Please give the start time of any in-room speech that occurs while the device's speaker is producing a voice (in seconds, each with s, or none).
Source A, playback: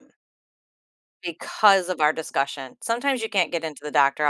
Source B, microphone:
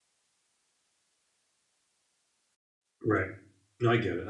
3.0 s